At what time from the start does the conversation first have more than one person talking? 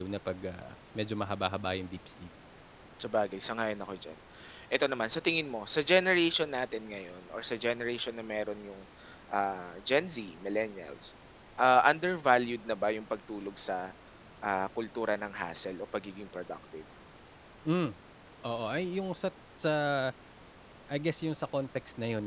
none

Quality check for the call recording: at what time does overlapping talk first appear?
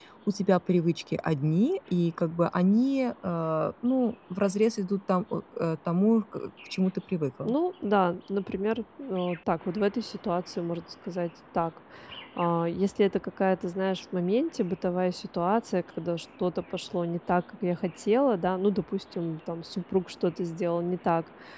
none

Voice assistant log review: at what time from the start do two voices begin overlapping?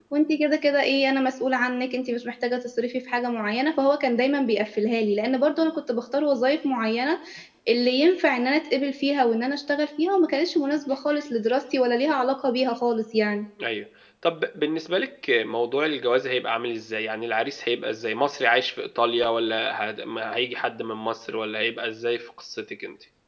none

